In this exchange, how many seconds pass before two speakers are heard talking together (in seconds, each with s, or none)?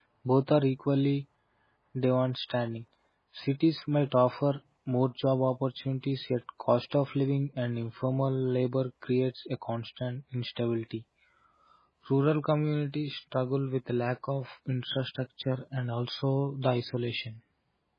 none